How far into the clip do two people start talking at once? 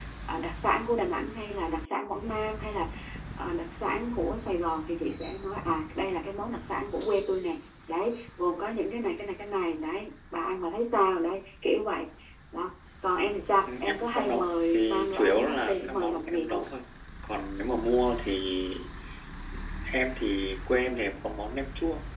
13.6 s

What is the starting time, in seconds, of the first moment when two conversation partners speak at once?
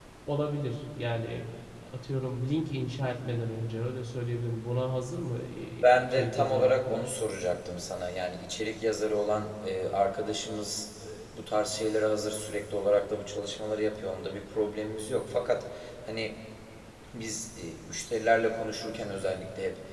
5.8 s

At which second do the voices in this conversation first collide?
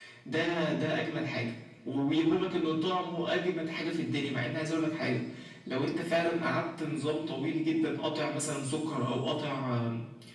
none

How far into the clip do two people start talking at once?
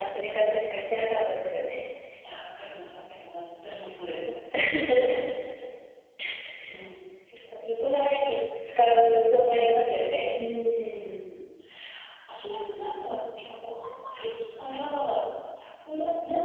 none

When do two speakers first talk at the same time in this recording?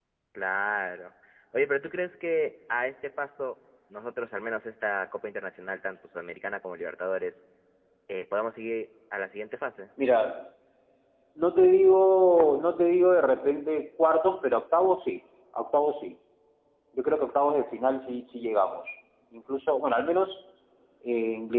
none

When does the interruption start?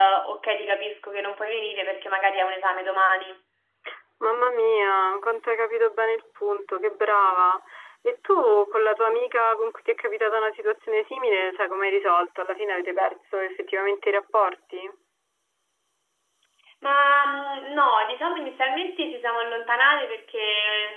none

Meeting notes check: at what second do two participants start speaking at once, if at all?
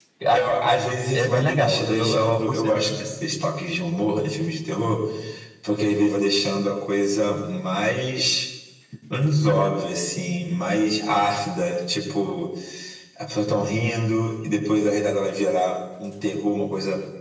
1.1 s

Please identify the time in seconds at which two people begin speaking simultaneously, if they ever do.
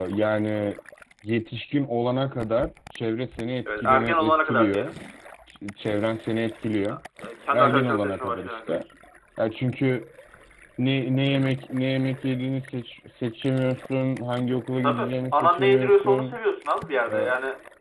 3.6 s

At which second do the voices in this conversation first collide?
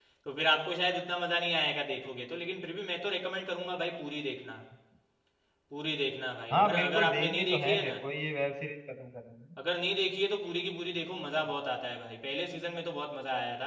6.5 s

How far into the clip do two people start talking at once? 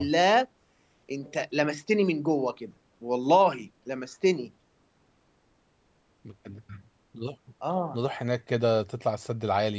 none

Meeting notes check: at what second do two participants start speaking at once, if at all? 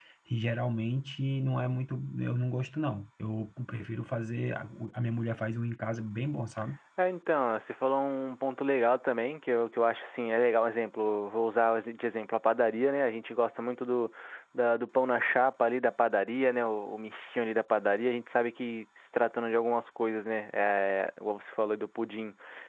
none

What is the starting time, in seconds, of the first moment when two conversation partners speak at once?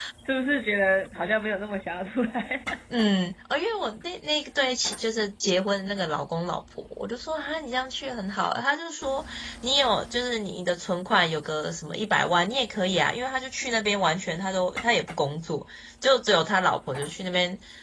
none

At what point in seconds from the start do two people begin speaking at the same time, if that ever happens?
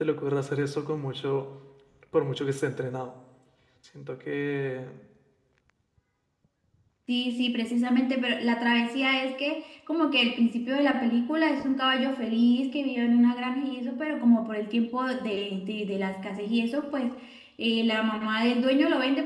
none

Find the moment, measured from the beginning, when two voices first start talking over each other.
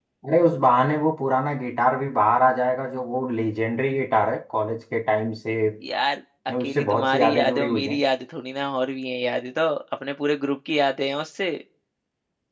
6.5 s

